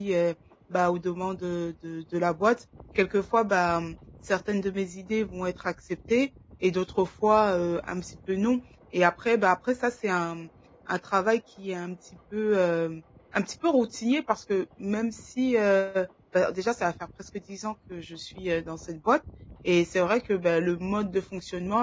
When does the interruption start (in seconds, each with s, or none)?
none